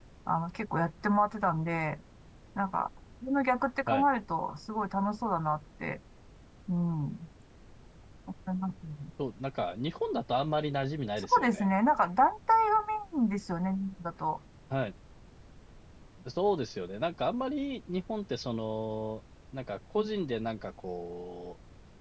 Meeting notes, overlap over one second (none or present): none